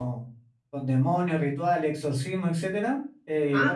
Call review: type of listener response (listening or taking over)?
listening